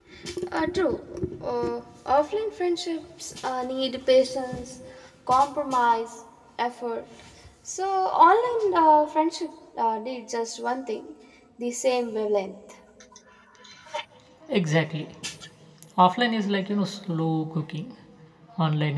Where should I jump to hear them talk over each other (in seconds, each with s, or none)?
none